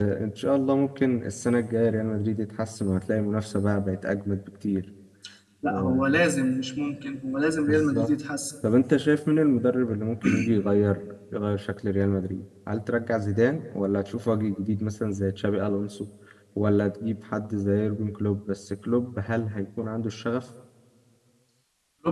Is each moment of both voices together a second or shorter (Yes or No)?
Yes